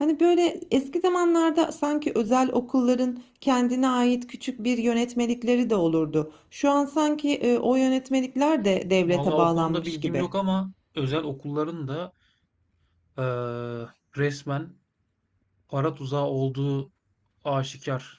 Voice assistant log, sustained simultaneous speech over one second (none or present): present